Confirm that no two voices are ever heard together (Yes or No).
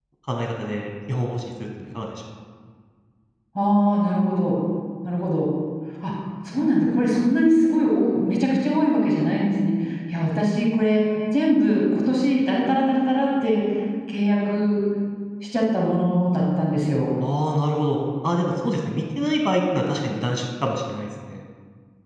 Yes